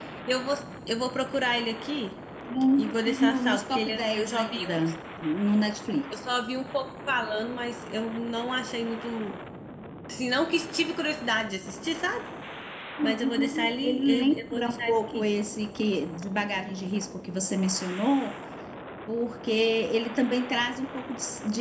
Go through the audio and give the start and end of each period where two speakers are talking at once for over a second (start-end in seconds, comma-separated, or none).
2.8-4.8, 13.0-15.2